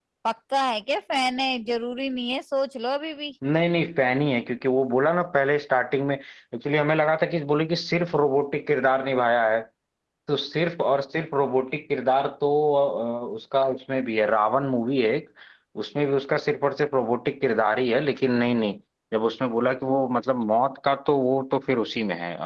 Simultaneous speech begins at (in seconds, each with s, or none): none